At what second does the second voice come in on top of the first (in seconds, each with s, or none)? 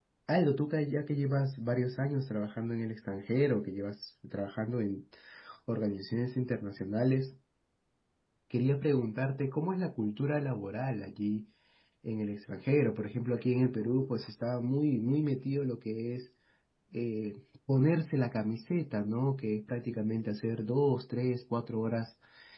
none